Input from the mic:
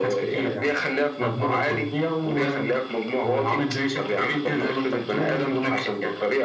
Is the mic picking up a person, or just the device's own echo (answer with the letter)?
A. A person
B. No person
B